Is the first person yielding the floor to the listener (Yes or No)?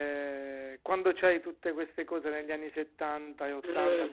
No